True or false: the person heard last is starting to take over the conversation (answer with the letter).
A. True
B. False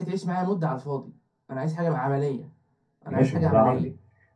A